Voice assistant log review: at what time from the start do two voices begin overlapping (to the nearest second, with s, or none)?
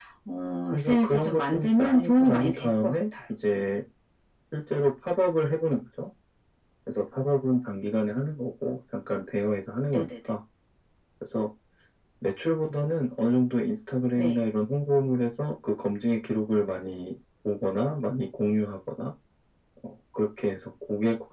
1 s